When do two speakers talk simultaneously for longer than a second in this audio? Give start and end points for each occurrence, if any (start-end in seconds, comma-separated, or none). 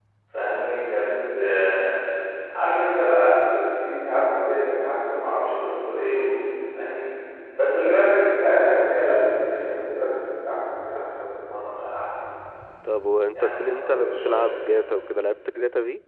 13.3-14.7